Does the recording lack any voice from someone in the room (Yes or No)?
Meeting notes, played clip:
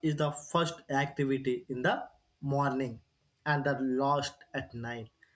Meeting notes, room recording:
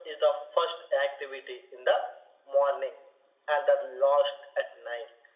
Yes